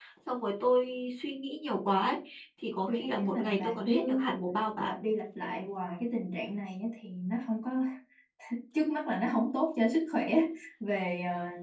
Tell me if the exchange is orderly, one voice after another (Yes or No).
No